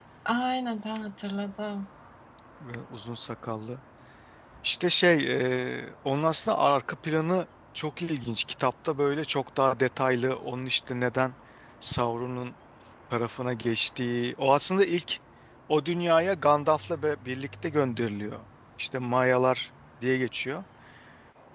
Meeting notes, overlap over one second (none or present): none